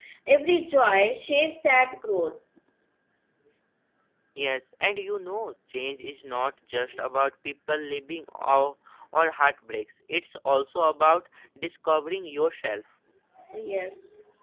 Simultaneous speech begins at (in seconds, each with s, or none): none